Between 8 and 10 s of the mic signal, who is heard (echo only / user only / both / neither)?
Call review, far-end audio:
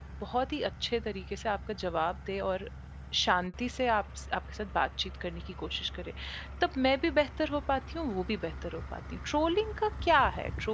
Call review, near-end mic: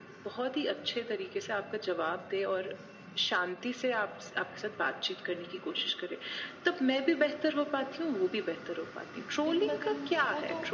both